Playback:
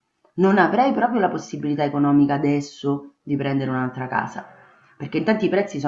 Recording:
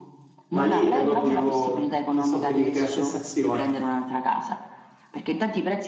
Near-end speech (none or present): present